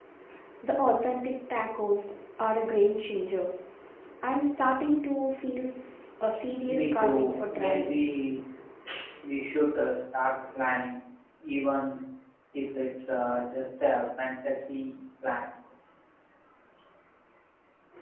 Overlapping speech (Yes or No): Yes